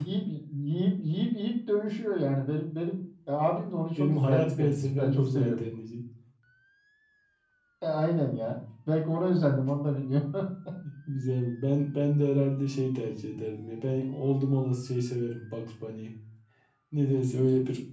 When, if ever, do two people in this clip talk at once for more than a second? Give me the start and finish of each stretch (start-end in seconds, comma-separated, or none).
4.0-5.6